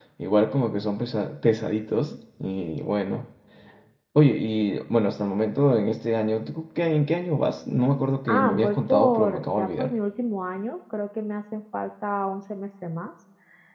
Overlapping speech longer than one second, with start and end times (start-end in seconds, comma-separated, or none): 8.3-9.9